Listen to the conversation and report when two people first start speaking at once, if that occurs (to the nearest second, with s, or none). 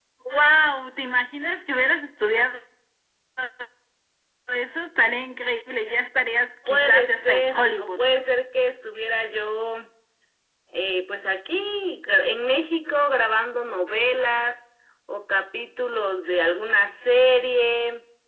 7 s